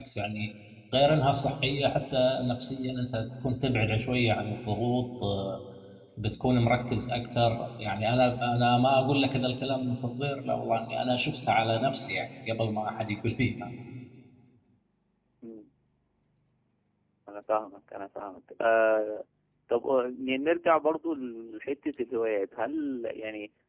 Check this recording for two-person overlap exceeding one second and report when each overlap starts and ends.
none

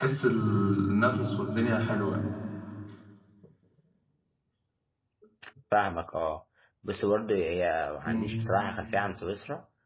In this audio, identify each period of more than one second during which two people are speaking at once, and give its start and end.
none

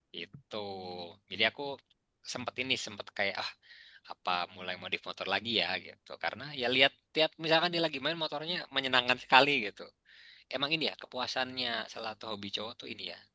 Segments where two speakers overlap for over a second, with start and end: none

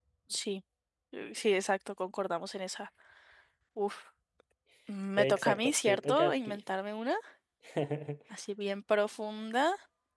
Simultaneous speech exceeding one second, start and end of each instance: 5.2-6.6

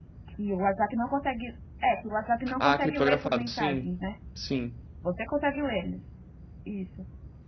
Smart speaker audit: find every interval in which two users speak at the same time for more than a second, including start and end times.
2.5-3.9

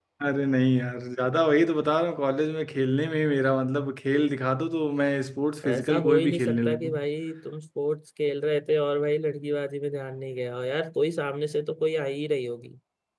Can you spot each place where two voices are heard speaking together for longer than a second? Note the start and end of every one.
5.7-6.9

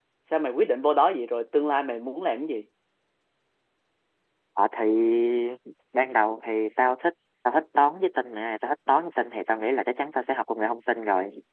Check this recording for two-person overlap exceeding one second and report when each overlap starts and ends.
none

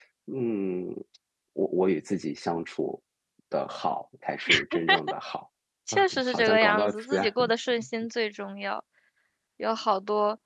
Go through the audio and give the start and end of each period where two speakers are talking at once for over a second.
5.9-7.3

